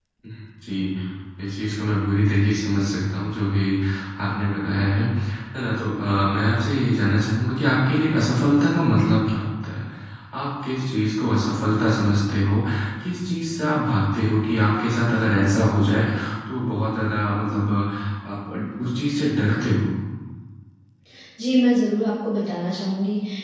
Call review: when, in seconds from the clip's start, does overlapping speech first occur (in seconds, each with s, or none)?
none